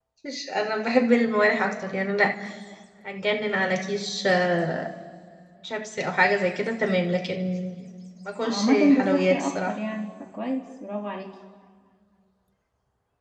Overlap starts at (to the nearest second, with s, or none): 8 s